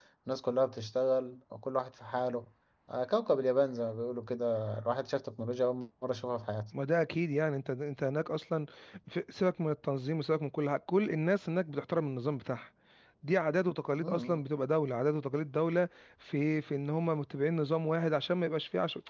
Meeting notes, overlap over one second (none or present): none